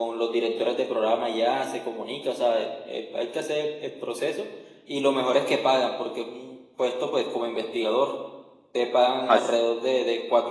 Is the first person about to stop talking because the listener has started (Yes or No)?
No